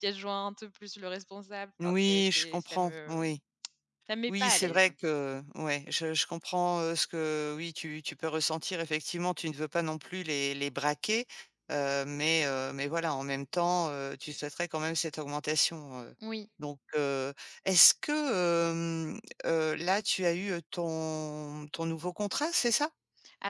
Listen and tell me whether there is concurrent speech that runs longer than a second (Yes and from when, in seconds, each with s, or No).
Yes, from 1.8 s